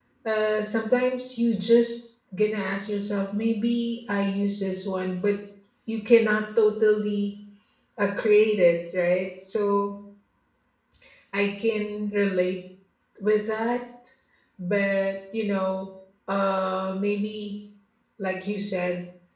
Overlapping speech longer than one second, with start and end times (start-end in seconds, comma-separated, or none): none